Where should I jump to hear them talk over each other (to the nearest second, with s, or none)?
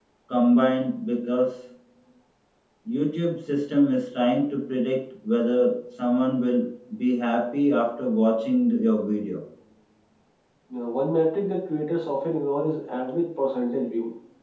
none